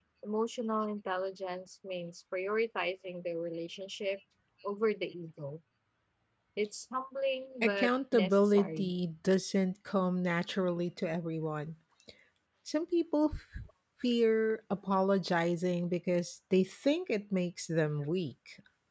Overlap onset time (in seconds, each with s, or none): 7.6 s